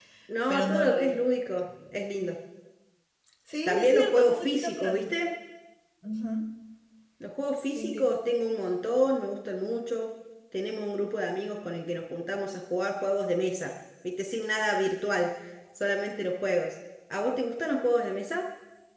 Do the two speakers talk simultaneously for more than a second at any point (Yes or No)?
Yes